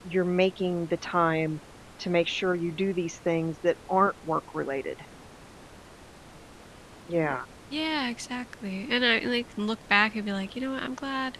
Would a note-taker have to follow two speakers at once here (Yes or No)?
No